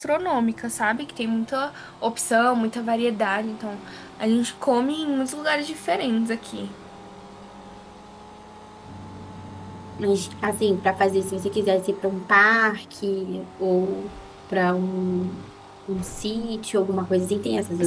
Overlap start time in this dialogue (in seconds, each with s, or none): none